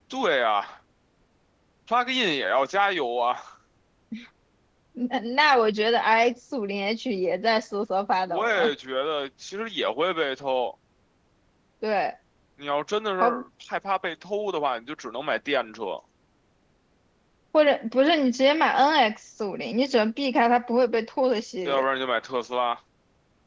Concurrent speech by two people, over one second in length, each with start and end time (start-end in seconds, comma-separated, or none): none